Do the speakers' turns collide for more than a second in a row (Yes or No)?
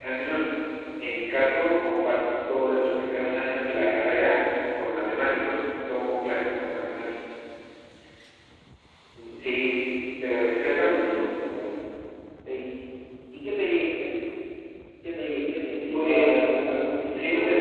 No